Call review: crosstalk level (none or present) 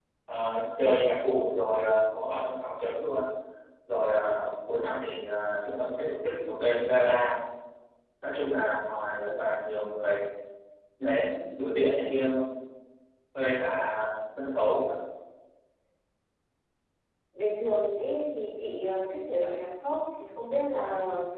none